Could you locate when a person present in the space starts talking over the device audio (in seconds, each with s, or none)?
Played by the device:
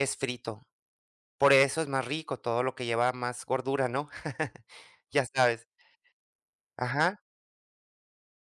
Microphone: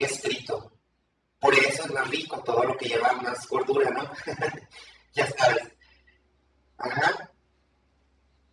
none